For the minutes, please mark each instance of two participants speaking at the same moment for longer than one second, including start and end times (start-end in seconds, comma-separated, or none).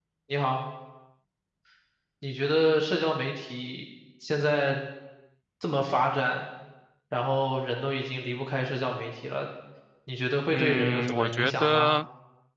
10.5-11.9